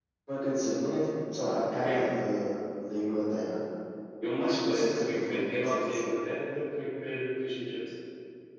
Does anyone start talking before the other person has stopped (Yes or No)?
Yes